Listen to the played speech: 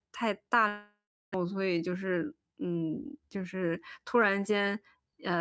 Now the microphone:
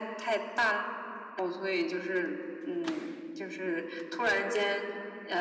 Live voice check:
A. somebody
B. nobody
B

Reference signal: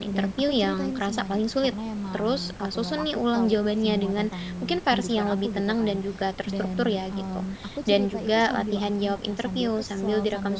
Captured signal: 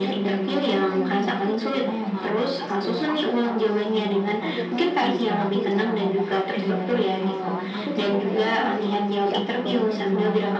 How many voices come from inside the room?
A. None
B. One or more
B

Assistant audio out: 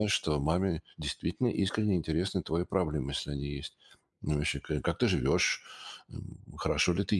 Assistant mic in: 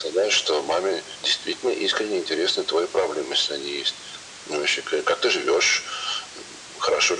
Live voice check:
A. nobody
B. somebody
A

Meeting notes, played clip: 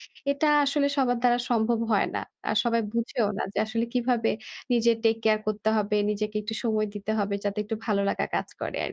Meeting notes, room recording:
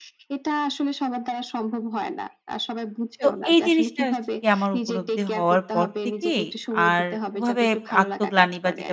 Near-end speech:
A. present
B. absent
A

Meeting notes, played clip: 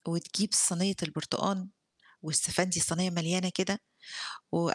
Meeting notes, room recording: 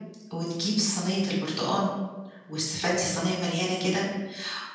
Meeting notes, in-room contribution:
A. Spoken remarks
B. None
B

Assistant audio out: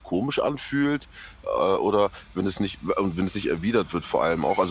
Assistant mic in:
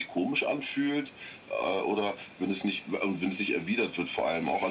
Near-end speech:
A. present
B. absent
B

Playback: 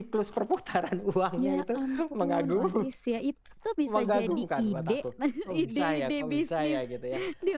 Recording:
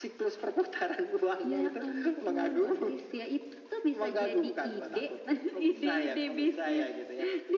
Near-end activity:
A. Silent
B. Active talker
A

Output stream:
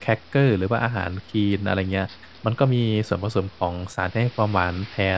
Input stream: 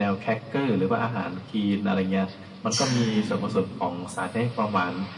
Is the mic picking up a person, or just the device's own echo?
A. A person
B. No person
A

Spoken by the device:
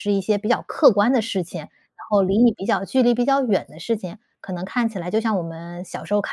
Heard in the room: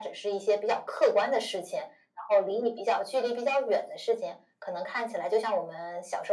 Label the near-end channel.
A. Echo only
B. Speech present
A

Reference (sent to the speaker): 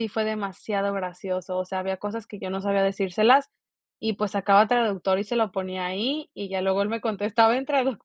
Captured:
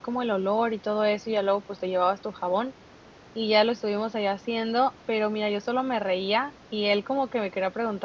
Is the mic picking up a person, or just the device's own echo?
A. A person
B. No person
A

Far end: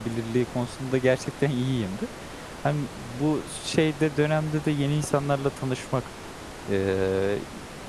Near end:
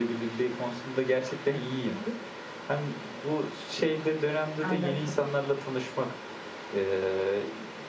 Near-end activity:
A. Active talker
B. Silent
A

